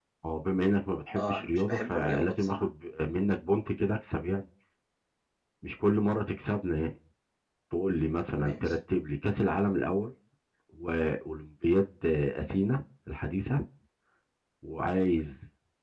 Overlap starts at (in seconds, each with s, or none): 1.2 s